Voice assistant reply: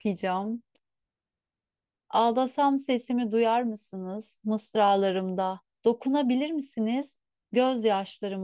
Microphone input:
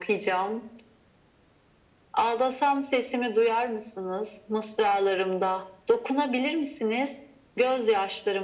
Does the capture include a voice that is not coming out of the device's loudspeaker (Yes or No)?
No